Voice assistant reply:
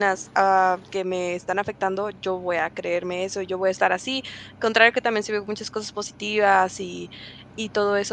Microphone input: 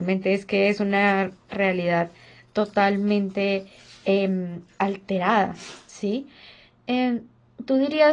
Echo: none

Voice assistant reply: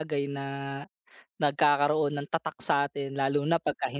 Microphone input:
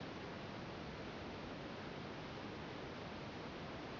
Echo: none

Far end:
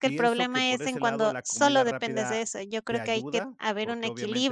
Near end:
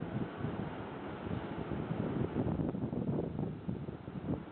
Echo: none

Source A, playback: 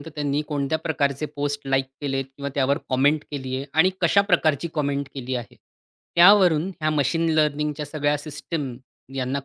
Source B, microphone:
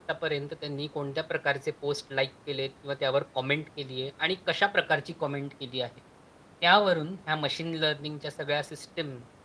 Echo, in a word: present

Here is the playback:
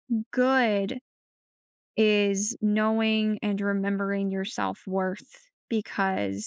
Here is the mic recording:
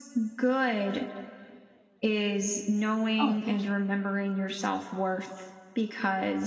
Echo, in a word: present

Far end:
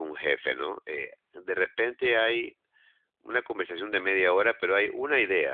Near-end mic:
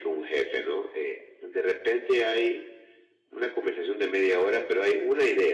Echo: present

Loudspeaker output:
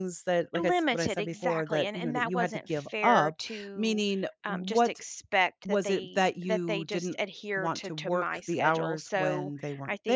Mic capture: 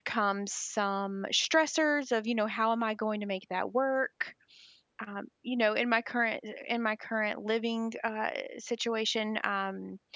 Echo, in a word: none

